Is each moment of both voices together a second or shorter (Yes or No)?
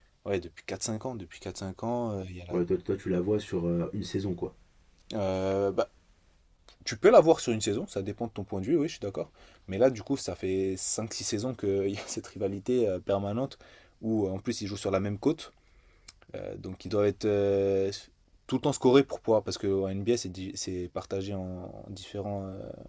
Yes